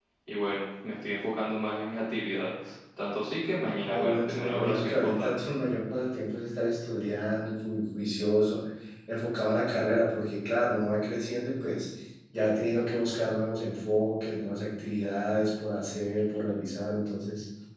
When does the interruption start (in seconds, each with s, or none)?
3.9 s